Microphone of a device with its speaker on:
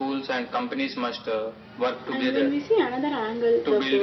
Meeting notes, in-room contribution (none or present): present